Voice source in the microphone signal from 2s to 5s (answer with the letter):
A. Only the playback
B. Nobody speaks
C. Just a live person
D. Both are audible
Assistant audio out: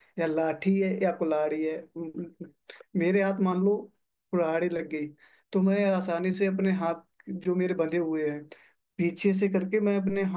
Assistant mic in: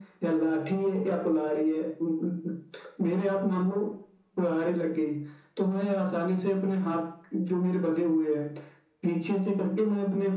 A